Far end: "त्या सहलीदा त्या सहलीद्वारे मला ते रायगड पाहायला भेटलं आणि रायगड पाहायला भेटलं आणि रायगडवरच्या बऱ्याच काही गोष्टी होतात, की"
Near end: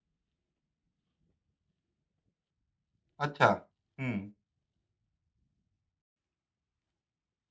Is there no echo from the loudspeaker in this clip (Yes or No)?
Yes